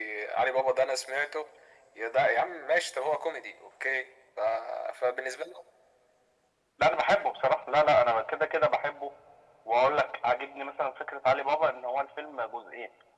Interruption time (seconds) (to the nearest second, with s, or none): none